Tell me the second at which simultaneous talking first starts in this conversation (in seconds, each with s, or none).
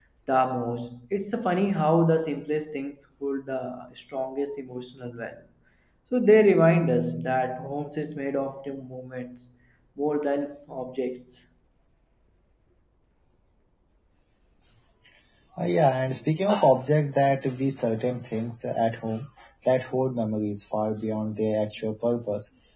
none